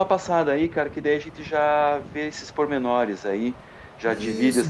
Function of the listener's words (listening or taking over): taking over